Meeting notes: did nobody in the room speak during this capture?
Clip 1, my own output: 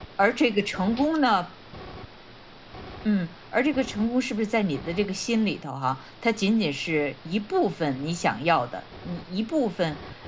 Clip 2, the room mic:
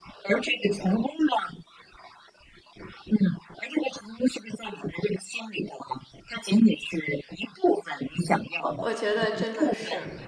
No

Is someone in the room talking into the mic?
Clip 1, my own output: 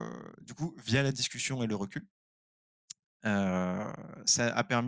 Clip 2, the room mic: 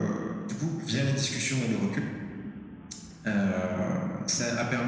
No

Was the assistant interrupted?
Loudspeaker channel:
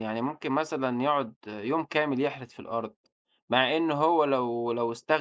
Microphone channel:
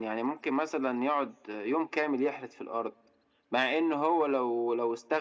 No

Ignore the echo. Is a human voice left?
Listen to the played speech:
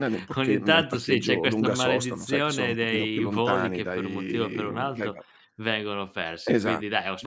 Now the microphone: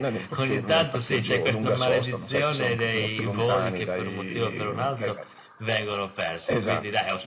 No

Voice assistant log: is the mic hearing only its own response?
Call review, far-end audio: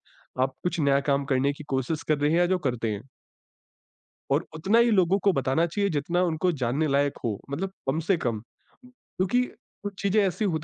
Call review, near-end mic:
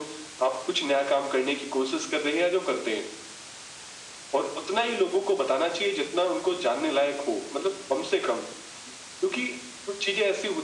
Yes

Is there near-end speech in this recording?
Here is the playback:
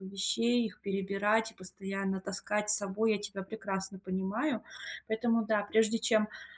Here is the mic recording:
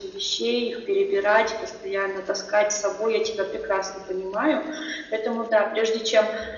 No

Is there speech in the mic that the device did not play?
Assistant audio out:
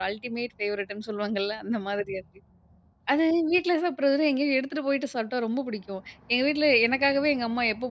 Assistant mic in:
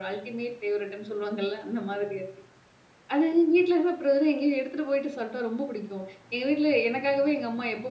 No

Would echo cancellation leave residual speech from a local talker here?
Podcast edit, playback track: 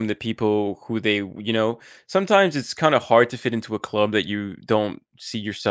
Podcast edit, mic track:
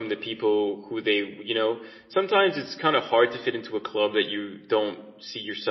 No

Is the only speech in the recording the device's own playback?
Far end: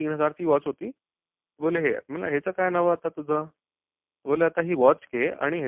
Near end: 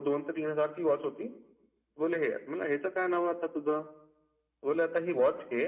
Yes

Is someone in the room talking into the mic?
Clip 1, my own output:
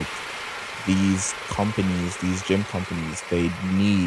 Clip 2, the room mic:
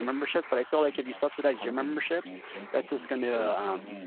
Yes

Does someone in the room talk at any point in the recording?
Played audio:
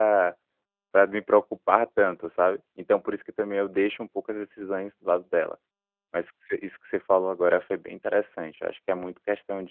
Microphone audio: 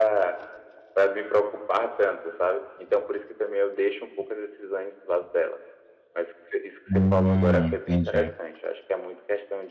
Yes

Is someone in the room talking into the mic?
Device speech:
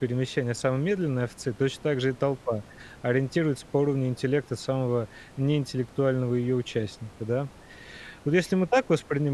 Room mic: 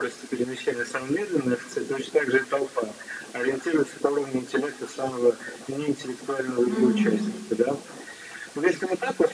Yes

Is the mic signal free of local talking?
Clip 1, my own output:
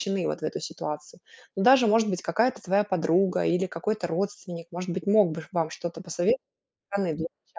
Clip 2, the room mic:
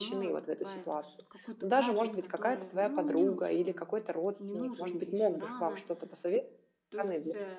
No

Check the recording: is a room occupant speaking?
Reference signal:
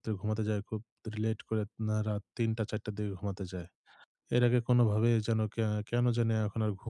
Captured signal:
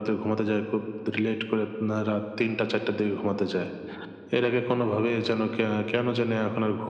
No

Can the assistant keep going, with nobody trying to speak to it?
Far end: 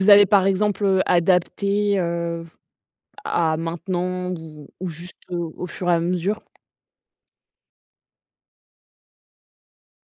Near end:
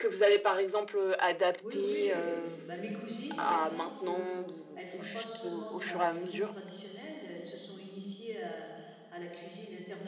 No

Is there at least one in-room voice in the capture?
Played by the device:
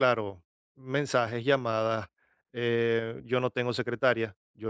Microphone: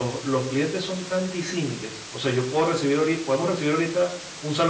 Yes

